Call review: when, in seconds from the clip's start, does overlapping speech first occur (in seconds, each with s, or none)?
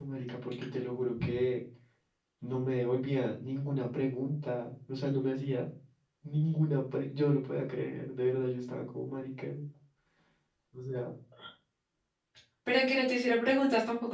none